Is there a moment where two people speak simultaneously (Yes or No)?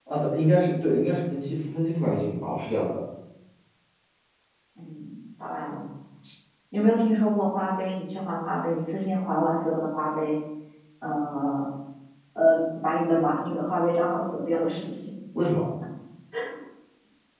No